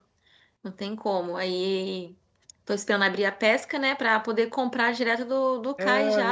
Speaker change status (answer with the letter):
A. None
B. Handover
B